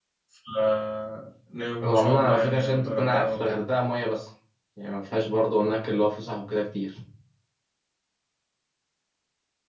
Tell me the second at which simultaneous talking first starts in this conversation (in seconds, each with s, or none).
1.8 s